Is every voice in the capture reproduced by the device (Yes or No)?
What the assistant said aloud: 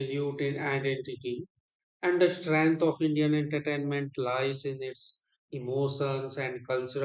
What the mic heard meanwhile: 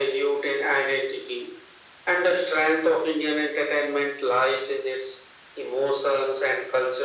Yes